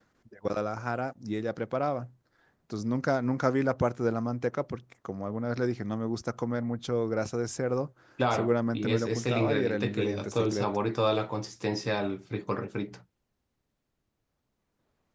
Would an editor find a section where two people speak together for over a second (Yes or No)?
Yes